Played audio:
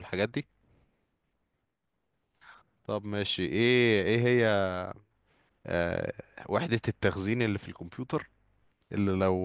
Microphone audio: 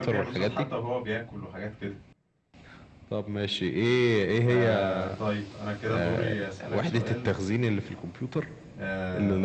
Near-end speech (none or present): present